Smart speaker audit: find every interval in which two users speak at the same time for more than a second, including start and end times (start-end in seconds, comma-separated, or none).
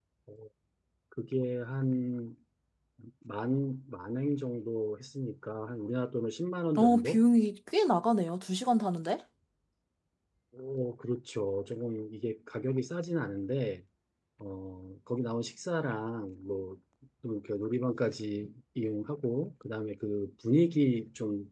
none